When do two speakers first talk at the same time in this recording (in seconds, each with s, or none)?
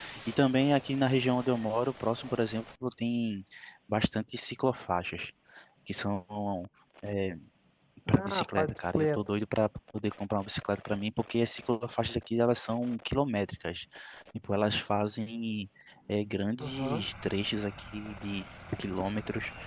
8.1 s